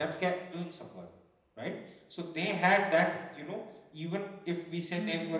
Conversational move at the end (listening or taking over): listening